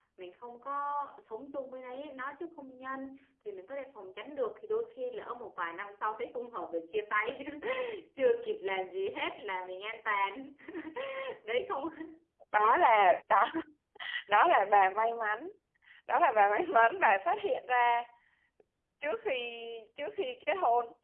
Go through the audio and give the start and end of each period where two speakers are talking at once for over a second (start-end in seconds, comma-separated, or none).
none